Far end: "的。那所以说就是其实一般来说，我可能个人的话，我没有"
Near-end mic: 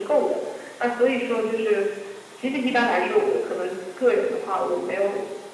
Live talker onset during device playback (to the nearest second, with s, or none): none